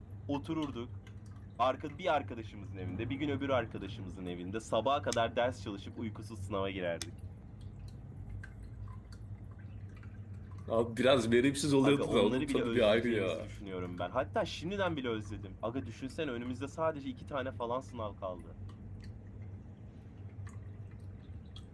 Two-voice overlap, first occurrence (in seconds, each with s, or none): 11.8 s